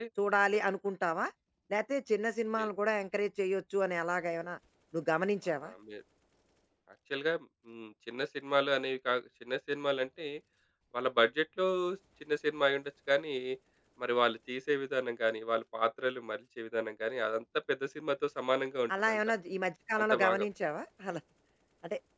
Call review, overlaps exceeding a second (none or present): none